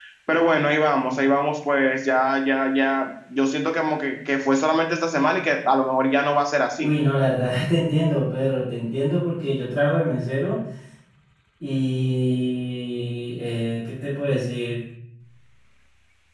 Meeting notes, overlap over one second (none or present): none